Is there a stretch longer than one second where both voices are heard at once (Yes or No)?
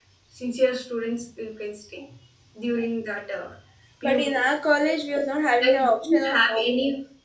Yes